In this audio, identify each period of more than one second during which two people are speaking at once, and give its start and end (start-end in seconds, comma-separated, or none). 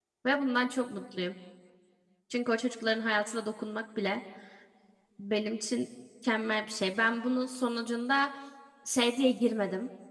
none